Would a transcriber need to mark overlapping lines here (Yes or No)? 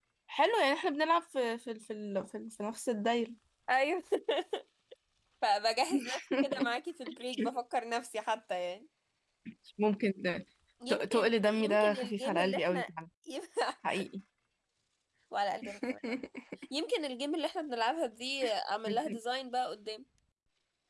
Yes